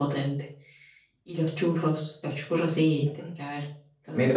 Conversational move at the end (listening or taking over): taking over